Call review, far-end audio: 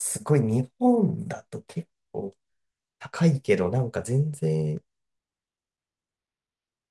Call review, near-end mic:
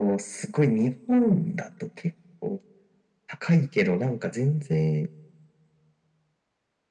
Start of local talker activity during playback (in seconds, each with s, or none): none